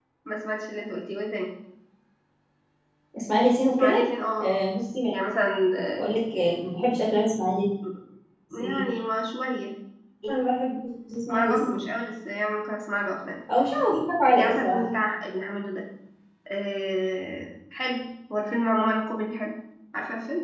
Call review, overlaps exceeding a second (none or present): none